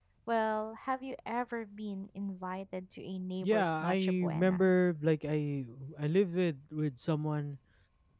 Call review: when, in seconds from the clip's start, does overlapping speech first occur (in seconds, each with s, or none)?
3.4 s